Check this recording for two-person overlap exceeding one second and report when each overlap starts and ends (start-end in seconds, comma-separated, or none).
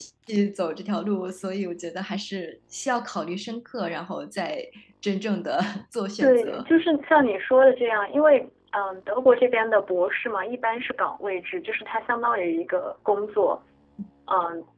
none